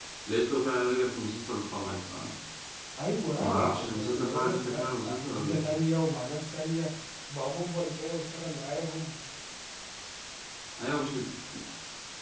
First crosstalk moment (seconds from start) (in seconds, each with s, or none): 3.4 s